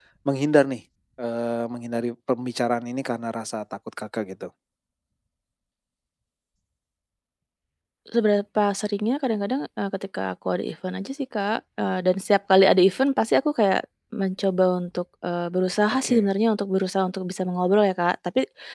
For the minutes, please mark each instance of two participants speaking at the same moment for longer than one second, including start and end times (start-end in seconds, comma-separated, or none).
none